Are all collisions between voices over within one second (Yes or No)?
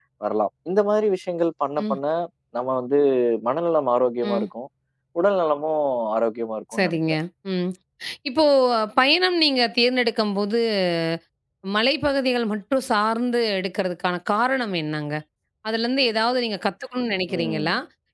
Yes